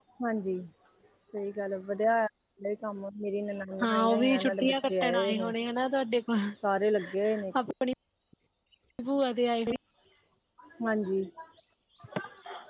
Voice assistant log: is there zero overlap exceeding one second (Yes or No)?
No